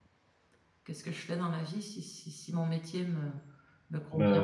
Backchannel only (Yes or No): No